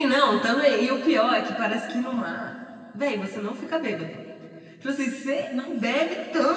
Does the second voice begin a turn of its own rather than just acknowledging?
No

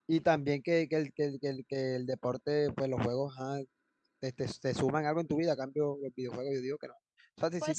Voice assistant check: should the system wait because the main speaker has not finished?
Yes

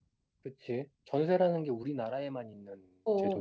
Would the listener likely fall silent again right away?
No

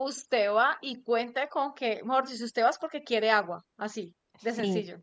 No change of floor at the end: No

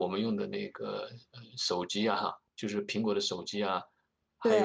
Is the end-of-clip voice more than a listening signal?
No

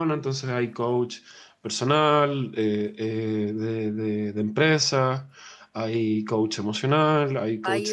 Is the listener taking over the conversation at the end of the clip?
Yes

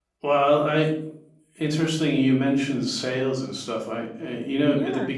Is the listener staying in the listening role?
Yes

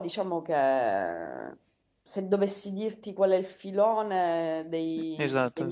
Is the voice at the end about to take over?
No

